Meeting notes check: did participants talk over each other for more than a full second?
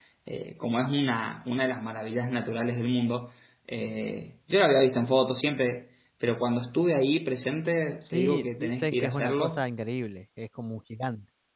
Yes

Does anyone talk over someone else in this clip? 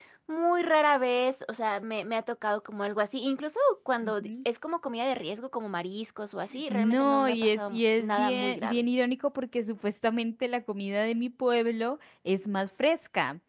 Yes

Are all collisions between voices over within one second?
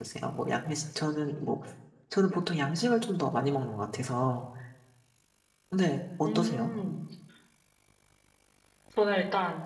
Yes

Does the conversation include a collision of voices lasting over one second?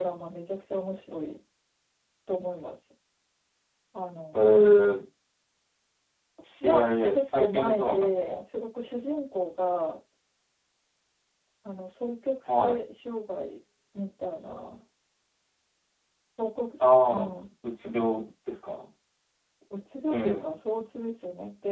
Yes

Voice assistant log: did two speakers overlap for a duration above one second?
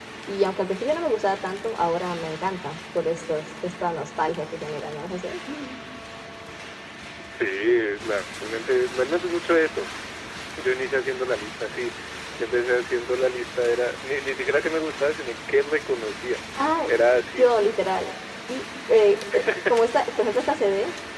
No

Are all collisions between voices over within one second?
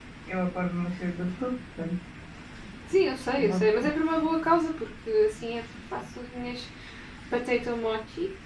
Yes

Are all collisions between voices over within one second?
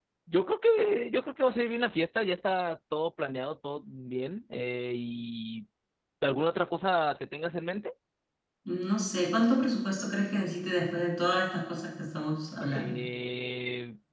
Yes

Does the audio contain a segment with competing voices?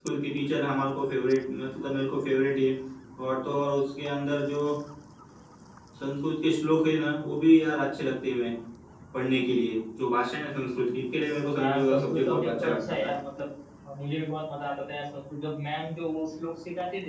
Yes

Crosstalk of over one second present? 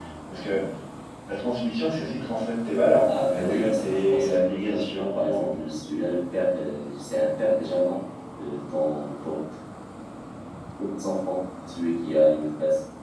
Yes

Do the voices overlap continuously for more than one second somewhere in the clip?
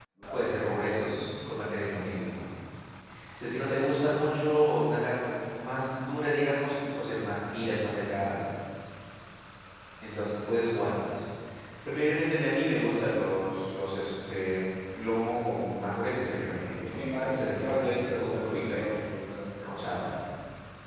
Yes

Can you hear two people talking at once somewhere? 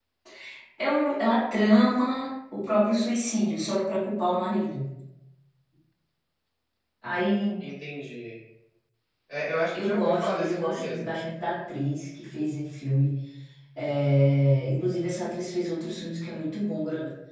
Yes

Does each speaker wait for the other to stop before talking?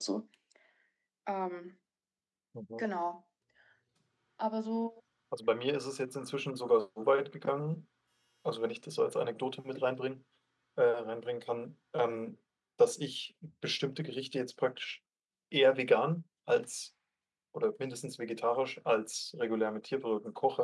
Yes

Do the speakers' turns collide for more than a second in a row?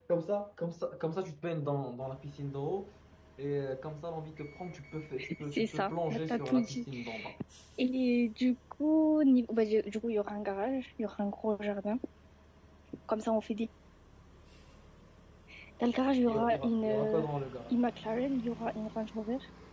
Yes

